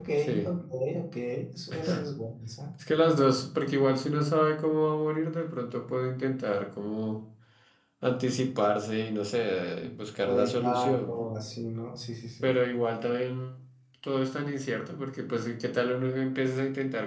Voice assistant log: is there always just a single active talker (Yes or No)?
No